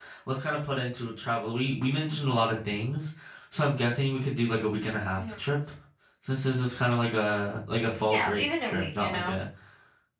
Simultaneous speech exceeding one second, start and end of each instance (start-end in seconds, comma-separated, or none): 8.1-9.4